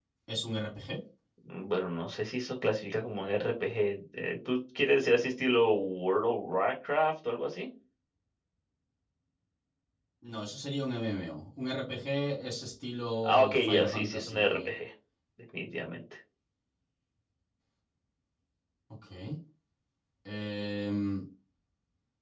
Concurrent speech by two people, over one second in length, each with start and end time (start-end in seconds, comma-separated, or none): 13.2-14.7